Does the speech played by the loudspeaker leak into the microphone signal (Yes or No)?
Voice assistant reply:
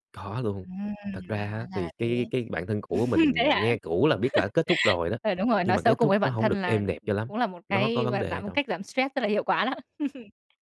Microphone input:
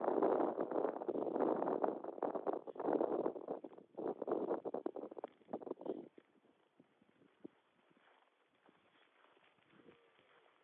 No